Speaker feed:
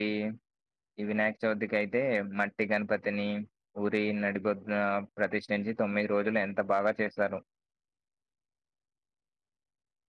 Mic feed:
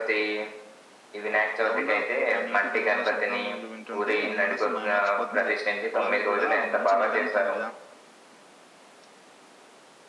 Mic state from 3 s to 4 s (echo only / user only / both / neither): both